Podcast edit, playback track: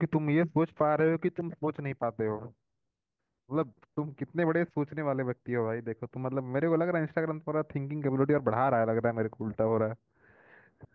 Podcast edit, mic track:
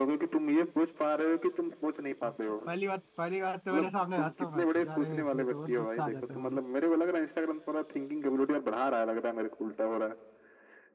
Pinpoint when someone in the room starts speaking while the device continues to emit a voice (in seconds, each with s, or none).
2.2 s